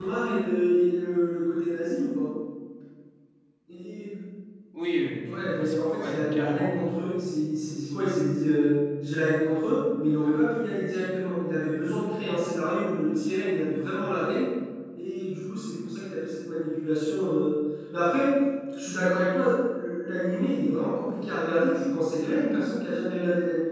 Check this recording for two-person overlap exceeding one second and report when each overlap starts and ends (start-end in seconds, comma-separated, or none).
5.2-6.8